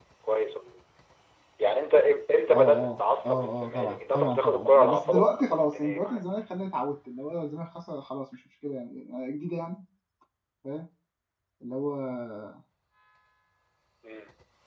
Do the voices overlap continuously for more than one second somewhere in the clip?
Yes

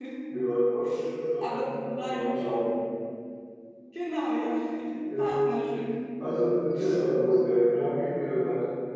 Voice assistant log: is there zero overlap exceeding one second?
No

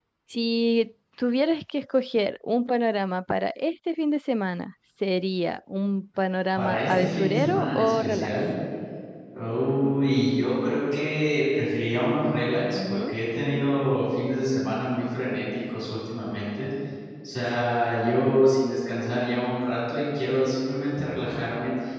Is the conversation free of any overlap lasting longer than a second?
No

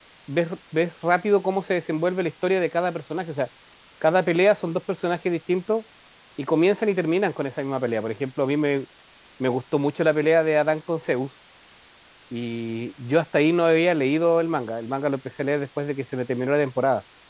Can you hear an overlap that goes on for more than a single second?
No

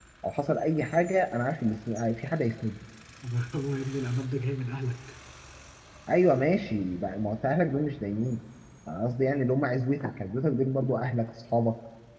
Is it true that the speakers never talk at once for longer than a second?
Yes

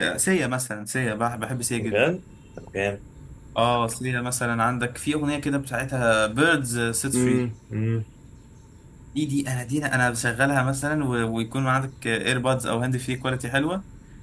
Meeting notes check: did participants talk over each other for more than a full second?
No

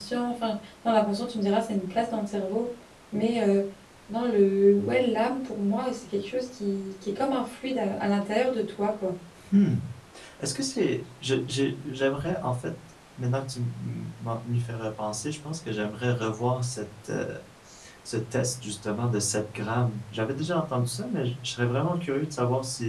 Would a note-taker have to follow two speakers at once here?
No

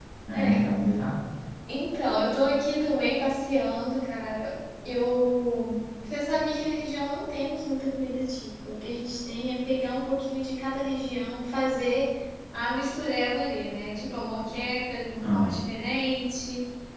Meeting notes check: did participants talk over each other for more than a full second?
No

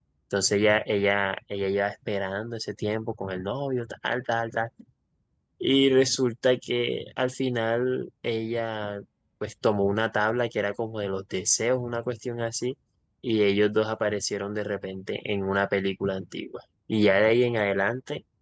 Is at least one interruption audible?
No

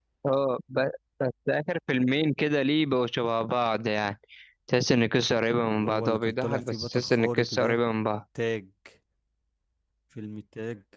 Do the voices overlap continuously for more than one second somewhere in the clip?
Yes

